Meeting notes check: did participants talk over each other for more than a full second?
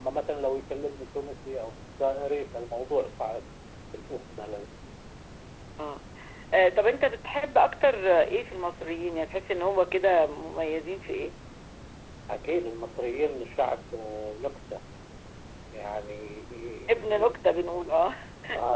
No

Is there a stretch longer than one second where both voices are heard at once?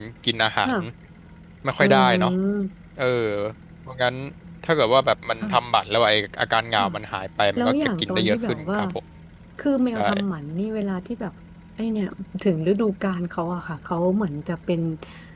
Yes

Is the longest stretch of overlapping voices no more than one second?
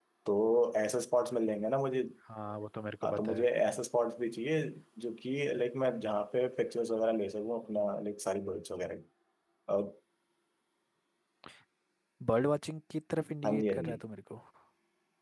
Yes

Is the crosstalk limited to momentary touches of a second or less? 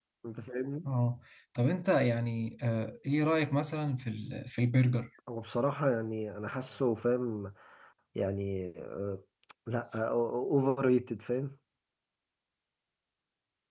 Yes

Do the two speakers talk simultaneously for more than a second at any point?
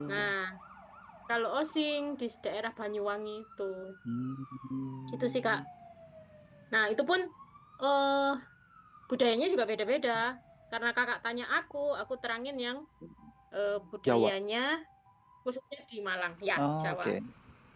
No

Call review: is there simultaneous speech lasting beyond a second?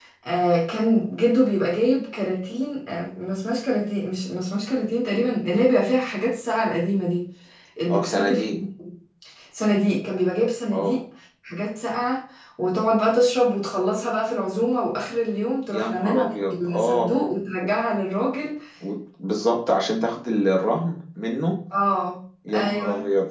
Yes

